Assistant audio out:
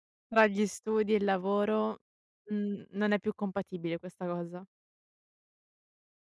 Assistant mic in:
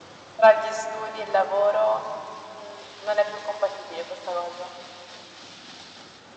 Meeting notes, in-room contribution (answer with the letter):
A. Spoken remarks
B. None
B